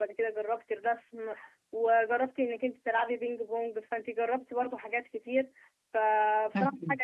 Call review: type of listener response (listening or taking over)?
listening